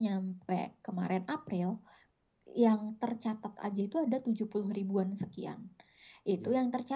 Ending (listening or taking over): listening